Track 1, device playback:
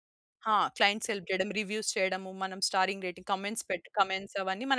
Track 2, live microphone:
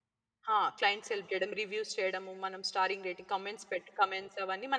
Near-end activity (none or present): none